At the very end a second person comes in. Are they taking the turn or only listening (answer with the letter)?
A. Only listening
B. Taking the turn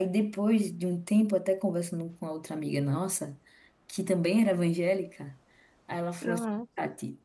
A